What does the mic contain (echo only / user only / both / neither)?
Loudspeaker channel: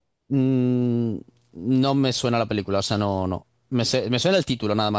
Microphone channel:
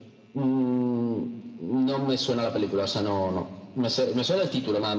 echo only